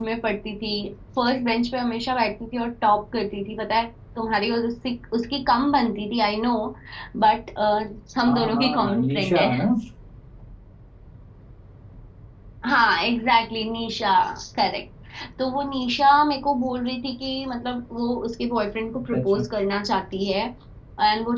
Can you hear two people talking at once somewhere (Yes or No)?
Yes